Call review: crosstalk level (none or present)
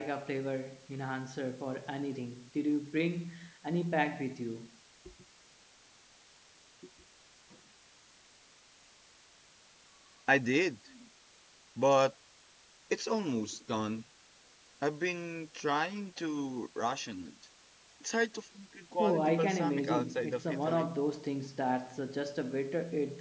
present